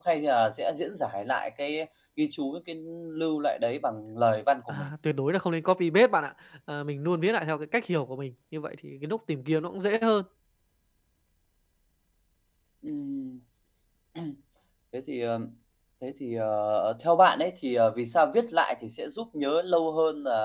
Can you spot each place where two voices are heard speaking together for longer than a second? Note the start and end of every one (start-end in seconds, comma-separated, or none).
none